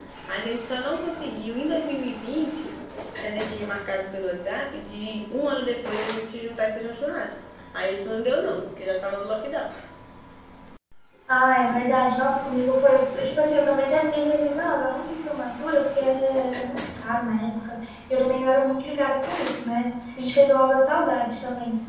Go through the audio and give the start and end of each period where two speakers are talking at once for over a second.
none

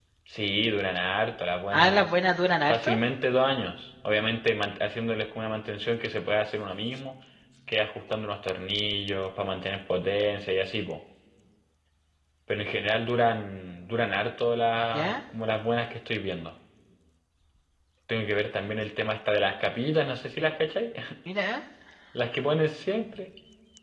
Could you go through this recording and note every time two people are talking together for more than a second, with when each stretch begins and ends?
none

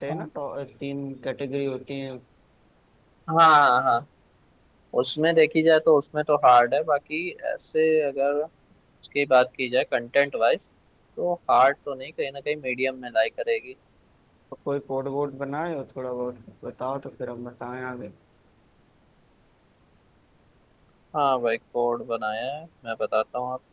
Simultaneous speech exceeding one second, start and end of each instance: none

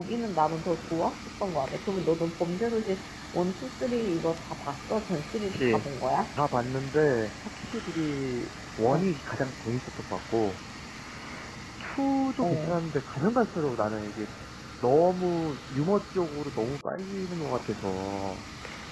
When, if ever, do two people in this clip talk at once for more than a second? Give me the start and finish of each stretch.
none

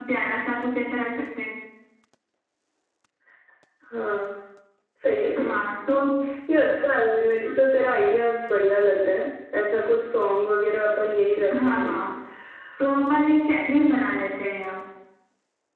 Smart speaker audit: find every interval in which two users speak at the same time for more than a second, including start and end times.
none

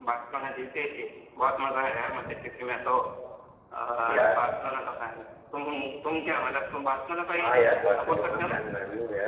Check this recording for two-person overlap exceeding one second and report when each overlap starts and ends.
7.4-8.6

